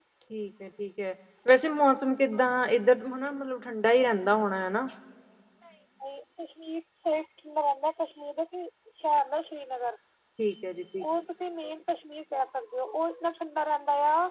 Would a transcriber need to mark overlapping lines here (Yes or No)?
No